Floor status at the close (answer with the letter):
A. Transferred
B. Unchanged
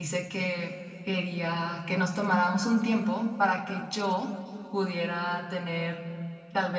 B